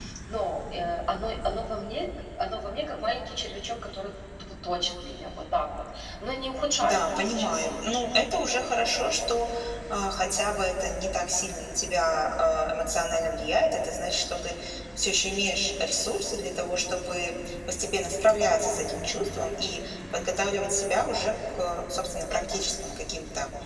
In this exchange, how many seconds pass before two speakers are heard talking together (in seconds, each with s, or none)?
6.8 s